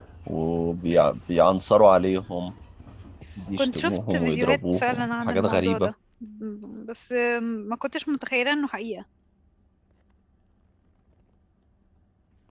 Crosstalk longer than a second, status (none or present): present